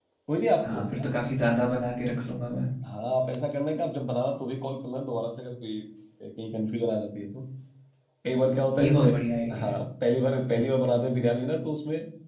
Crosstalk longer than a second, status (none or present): none